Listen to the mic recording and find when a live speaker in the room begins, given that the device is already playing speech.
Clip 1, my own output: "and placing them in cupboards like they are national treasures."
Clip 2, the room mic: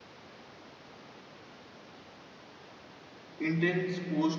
3.4 s

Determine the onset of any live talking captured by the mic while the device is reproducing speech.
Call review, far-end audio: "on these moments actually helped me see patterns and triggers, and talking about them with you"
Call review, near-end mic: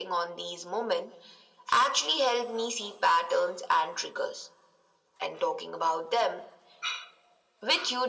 none

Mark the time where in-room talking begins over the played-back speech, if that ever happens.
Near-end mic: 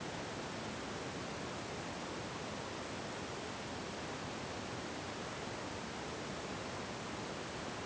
none

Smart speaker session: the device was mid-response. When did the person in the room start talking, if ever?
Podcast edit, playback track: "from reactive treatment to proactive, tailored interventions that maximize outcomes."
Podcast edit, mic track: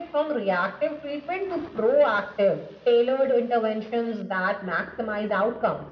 none

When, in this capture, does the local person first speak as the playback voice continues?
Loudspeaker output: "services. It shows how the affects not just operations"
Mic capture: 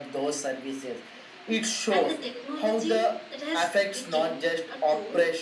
1.9 s

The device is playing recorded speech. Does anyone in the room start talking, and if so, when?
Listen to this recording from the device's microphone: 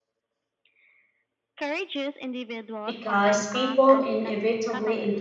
2.8 s

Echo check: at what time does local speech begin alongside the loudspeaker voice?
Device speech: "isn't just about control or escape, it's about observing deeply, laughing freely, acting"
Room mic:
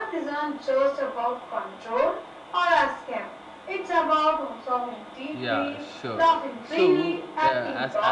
5.3 s

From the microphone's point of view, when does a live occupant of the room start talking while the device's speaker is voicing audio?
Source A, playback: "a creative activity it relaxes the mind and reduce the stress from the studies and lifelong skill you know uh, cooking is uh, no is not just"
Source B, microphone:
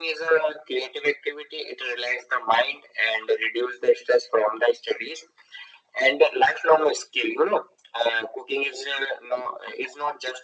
none

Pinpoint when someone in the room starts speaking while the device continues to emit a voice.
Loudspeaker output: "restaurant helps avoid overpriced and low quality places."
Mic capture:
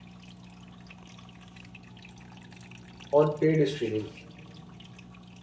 3.1 s

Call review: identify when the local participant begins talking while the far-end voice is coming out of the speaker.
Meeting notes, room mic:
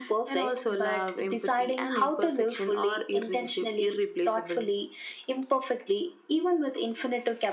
none

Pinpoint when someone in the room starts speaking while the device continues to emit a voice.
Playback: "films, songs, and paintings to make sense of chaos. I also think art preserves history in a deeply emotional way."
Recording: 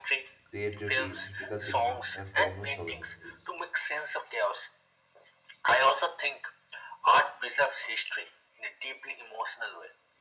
0.4 s

